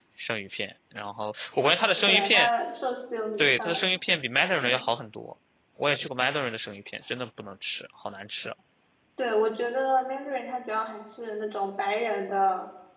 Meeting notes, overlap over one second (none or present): none